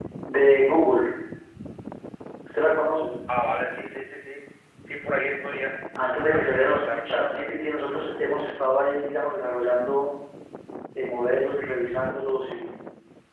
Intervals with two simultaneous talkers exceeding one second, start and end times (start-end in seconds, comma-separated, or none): 6.2-7.5